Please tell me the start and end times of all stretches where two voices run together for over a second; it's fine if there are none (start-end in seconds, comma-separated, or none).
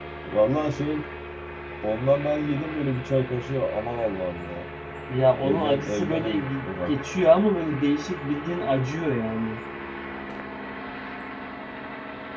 5.4-7.0